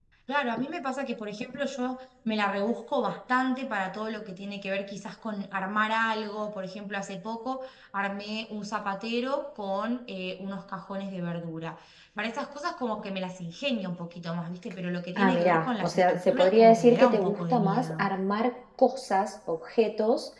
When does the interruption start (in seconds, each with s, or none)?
15.2 s